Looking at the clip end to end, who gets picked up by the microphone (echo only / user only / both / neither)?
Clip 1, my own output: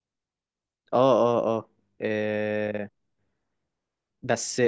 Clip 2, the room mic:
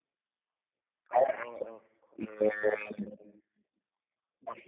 echo only